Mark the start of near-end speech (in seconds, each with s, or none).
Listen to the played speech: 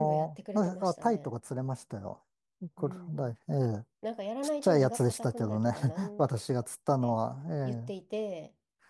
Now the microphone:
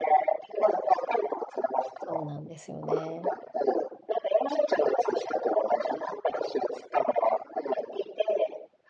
2.0 s